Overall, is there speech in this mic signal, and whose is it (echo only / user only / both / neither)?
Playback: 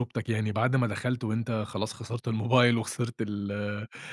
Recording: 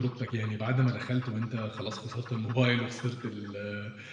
echo only